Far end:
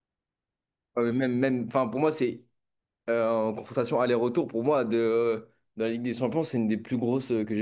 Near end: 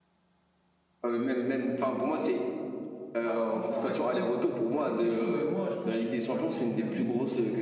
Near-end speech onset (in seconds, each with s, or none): 3.2 s